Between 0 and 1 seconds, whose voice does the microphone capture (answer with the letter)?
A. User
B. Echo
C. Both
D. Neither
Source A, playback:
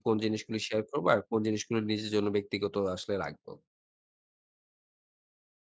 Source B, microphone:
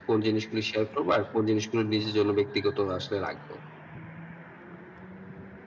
B